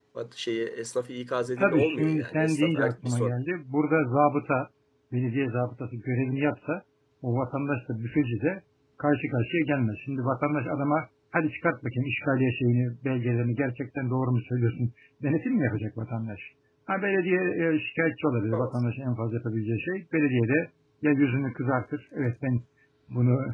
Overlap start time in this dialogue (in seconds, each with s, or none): 1.6 s